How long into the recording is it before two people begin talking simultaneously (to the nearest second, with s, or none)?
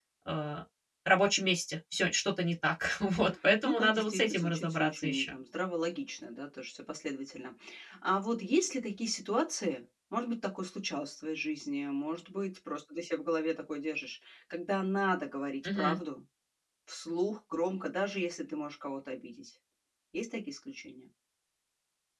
4 s